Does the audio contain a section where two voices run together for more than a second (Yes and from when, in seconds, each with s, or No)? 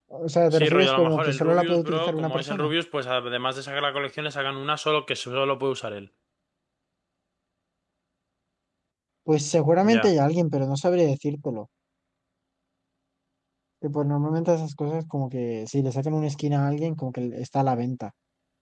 Yes, from 0.5 s